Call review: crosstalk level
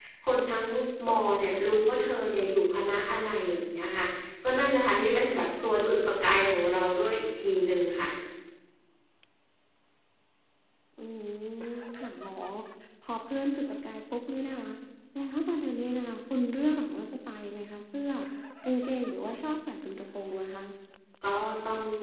none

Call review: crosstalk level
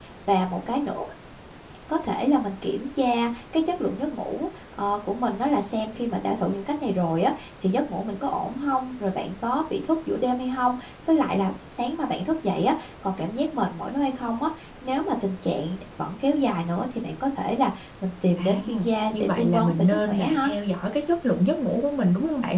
present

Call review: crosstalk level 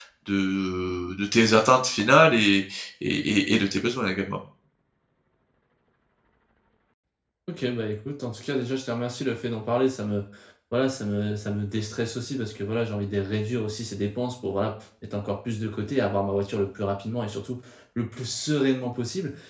none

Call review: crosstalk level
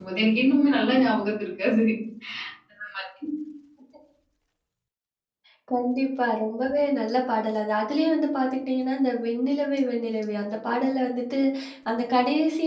none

